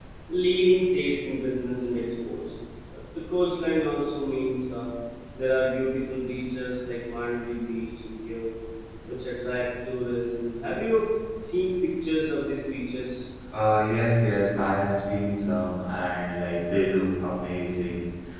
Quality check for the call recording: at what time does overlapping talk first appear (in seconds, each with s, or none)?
none